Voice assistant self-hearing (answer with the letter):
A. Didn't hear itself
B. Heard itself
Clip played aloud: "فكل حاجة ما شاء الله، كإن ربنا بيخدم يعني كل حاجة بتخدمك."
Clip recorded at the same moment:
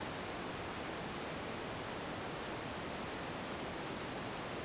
A